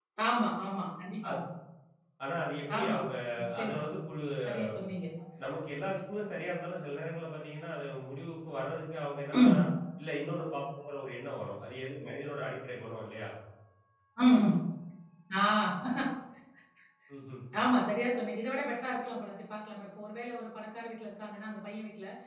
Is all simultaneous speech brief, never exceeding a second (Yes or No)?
Yes